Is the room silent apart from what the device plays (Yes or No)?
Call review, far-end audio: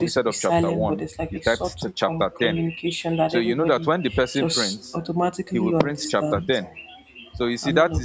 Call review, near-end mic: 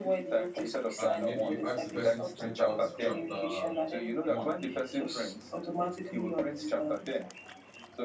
No